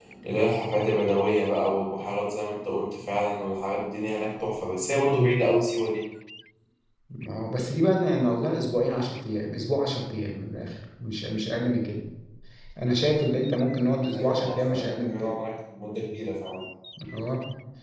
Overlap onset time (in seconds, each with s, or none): 14.1 s